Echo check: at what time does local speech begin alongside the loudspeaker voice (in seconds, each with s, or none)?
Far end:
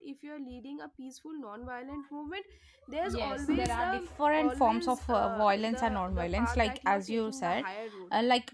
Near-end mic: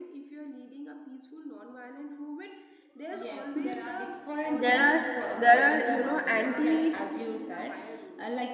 4.6 s